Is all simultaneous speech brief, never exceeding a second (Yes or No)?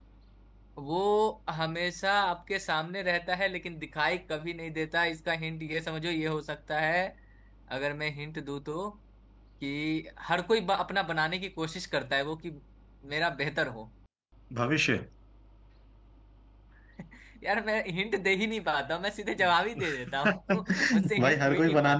No